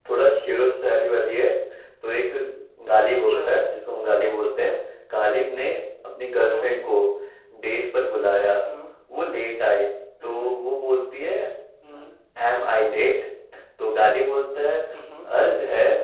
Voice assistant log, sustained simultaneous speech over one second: none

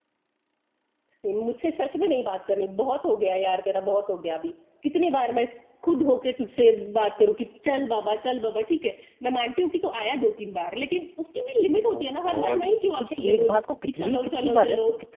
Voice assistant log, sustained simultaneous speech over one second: present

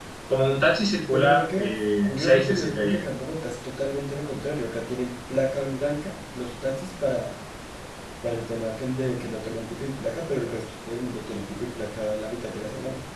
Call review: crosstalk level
present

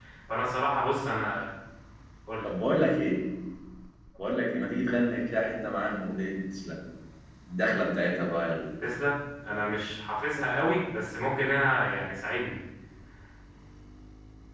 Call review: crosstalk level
none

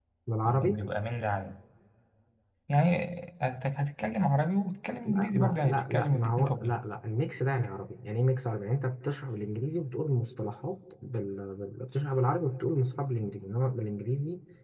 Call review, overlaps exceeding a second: present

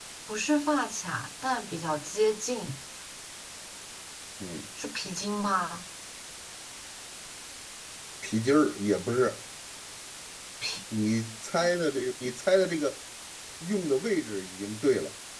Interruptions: none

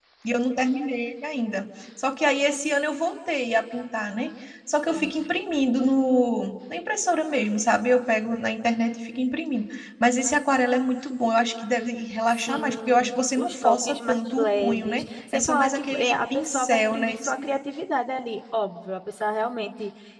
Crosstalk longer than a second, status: present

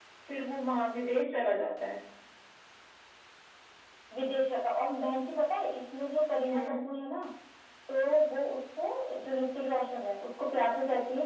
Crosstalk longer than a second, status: none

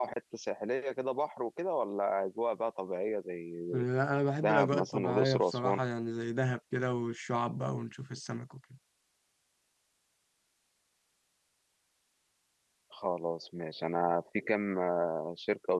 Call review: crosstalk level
present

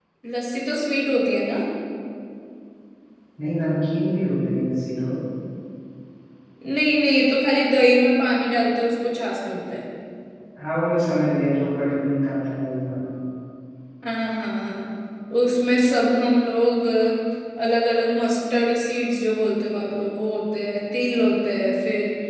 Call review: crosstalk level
none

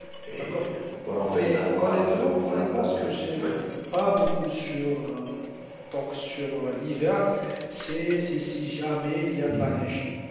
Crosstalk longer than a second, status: present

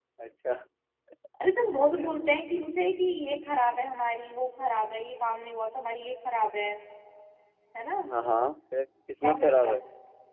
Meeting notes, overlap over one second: none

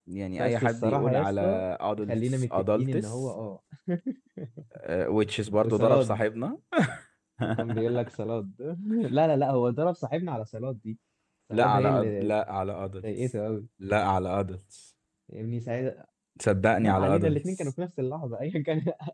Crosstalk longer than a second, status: present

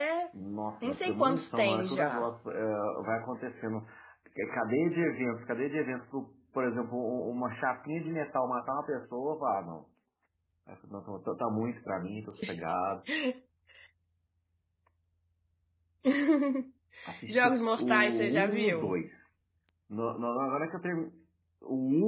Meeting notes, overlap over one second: present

